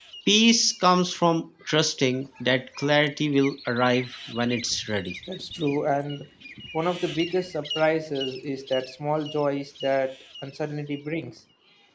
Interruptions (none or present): none